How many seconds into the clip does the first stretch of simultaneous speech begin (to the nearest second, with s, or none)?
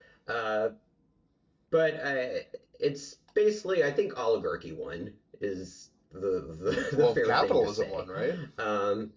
7 s